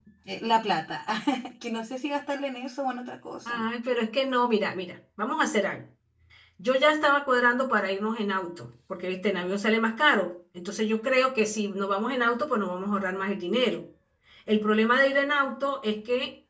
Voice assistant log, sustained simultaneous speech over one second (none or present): none